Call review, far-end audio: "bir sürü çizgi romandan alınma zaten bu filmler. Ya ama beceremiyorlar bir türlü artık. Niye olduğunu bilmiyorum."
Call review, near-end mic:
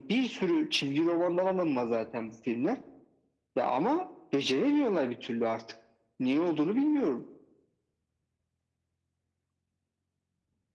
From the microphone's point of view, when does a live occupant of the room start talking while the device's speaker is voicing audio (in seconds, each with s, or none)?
none